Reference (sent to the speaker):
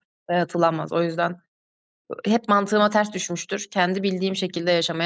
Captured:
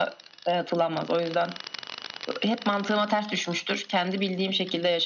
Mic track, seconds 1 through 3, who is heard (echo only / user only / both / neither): echo only